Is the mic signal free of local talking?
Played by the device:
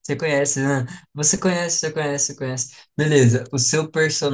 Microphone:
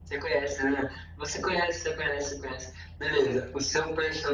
Yes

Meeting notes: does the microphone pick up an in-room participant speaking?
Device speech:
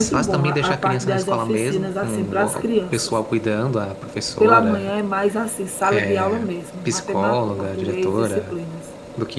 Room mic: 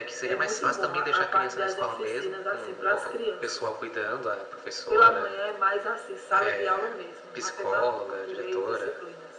No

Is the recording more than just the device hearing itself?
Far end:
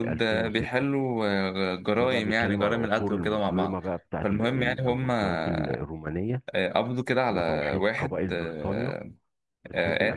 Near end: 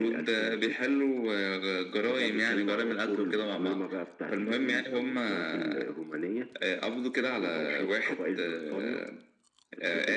No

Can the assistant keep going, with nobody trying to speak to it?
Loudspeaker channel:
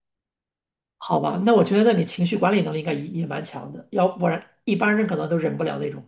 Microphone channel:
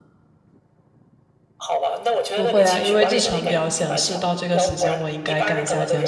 No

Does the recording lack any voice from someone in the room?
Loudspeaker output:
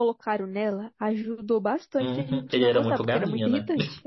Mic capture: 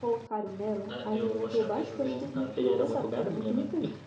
No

